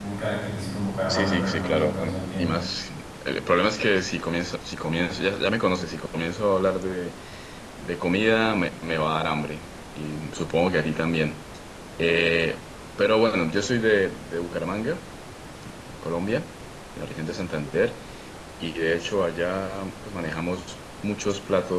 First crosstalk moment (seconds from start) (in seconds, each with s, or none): 1.1 s